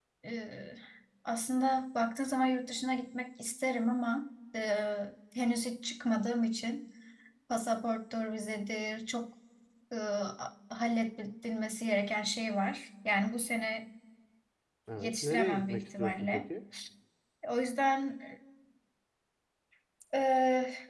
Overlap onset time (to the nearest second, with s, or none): 15 s